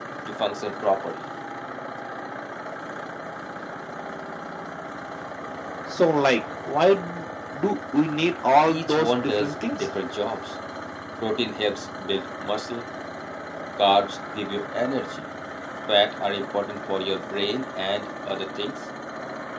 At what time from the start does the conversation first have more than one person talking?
8.7 s

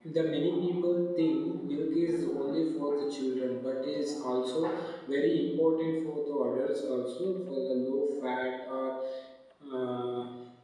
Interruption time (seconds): none

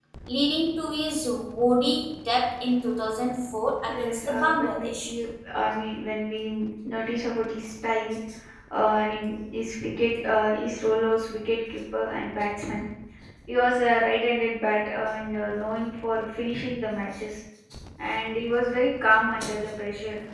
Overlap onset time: 3.9 s

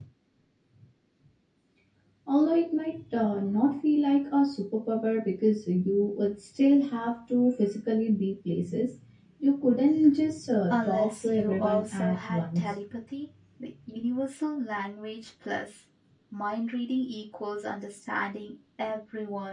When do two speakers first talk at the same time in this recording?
10.7 s

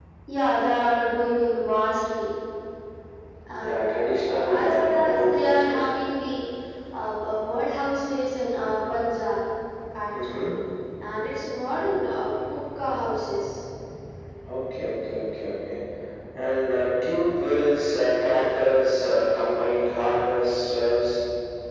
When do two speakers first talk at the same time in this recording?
3.6 s

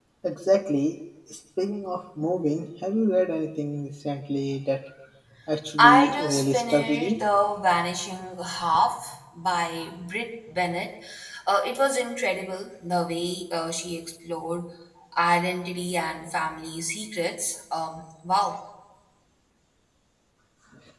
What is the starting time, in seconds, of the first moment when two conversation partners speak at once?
5.8 s

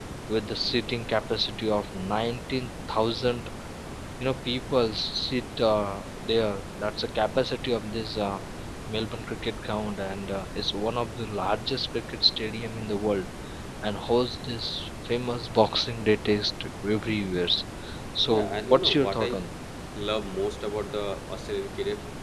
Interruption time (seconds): 18.2 s

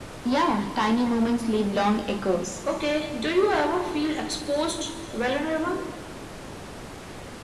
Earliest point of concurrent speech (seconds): none

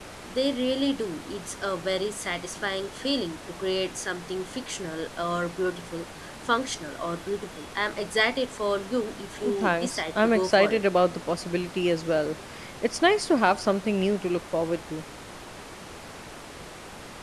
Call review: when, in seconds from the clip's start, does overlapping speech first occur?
9.4 s

